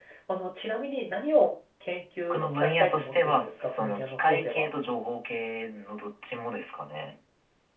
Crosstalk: present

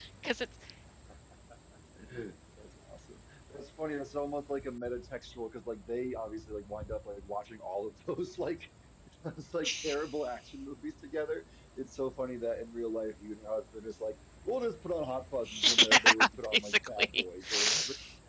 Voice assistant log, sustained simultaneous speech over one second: present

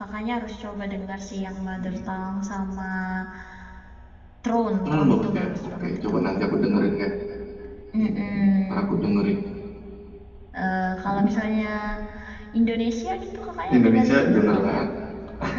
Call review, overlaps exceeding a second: present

